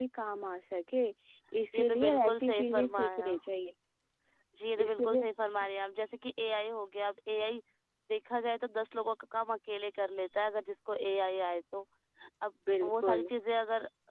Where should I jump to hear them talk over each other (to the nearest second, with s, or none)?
2 s